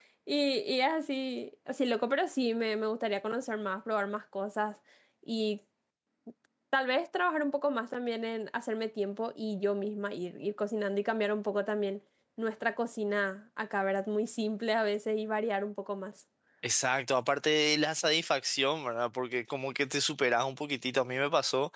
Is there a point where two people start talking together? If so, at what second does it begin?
none

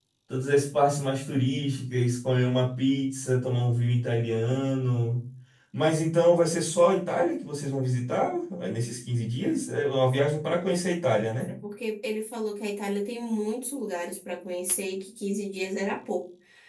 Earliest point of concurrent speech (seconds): none

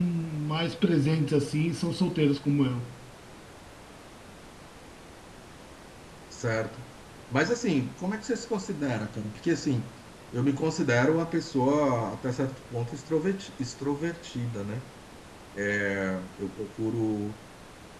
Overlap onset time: none

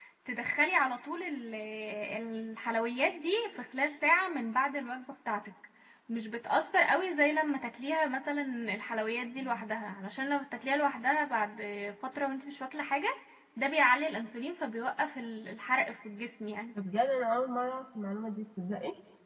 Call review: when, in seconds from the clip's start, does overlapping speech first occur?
none

